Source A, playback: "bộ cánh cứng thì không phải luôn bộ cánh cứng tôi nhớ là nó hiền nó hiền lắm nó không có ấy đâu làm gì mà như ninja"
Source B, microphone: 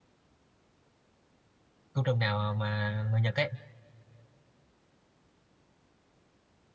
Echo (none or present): none